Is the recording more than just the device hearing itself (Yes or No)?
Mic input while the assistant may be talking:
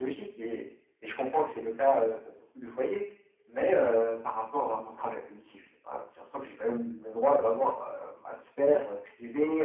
No